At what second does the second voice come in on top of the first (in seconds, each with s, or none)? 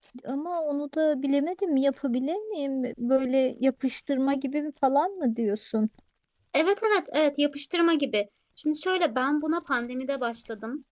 none